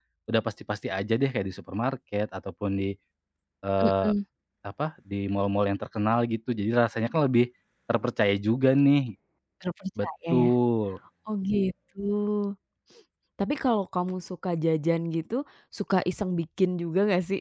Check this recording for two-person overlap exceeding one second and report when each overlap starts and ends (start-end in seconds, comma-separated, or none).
none